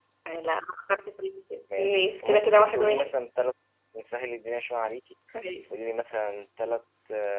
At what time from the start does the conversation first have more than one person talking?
1.7 s

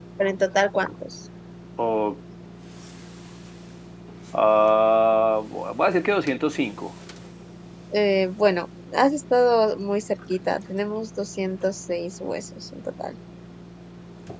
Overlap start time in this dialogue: none

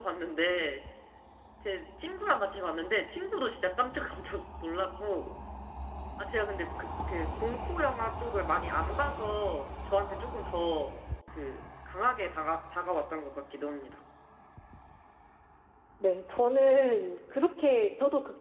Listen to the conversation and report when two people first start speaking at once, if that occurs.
none

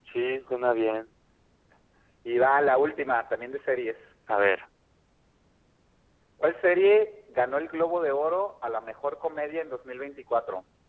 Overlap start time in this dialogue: none

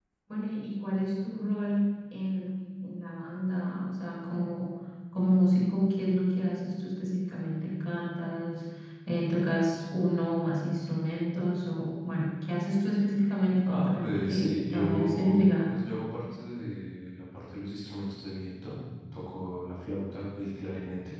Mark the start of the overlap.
13.7 s

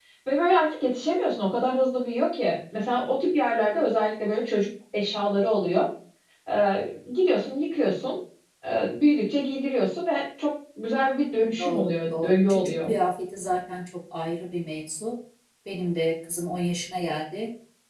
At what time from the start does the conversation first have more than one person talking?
11.6 s

